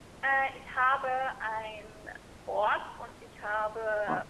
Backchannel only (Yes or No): Yes